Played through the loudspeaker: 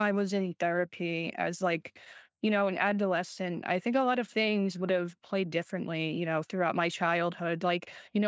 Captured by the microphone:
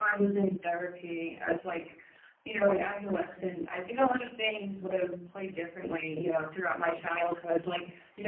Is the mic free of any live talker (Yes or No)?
Yes